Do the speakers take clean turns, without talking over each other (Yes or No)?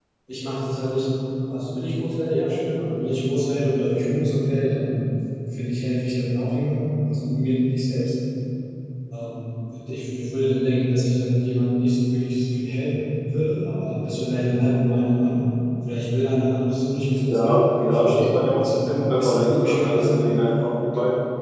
No